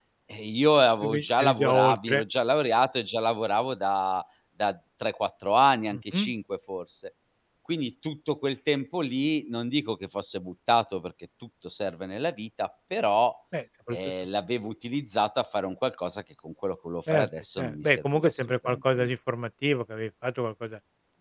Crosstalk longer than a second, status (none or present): present